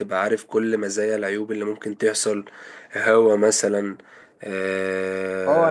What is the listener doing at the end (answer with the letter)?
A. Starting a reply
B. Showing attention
A